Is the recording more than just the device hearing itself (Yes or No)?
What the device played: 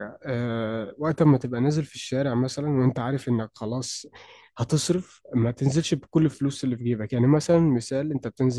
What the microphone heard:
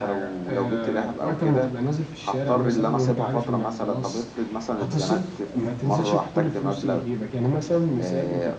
Yes